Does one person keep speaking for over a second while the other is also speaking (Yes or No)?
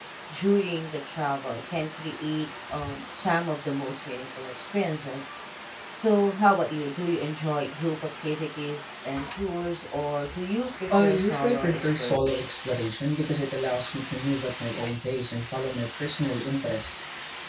Yes